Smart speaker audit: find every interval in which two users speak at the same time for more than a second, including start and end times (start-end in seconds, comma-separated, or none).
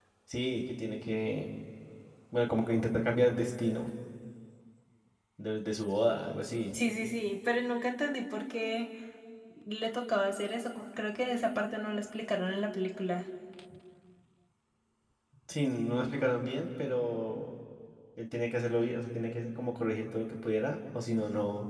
none